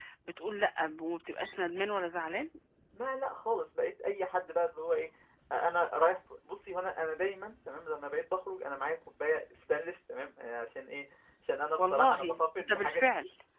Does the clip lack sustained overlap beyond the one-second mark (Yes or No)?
No